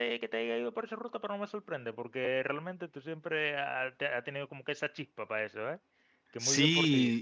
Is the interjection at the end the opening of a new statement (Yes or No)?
Yes